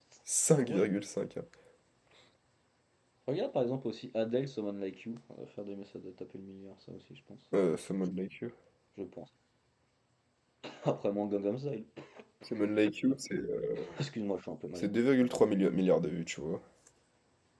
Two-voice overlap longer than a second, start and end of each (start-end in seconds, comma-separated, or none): none